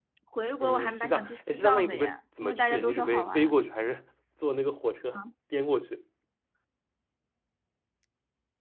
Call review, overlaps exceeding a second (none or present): present